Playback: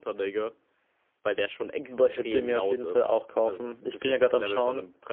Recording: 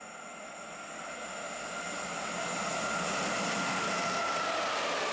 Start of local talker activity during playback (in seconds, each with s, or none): none